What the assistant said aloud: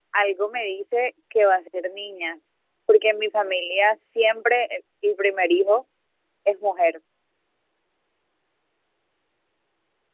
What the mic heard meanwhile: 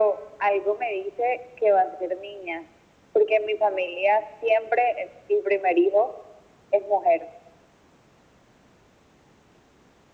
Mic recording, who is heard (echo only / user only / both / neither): echo only